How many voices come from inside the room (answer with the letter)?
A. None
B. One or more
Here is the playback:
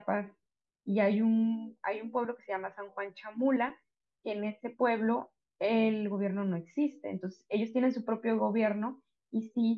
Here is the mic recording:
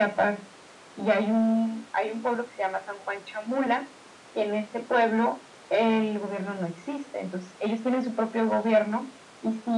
A